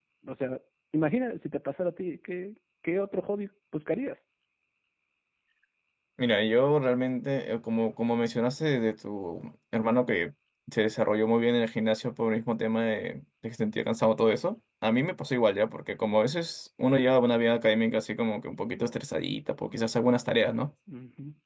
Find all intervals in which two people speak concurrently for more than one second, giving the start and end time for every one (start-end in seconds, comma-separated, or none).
none